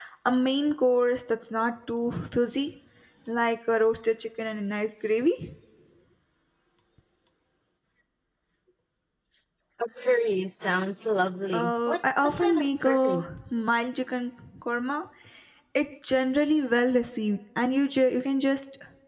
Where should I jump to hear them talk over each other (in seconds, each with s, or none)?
11.5 s